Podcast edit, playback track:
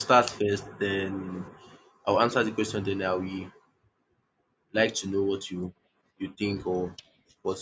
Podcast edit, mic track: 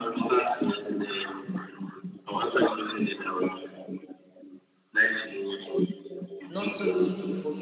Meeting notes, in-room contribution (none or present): present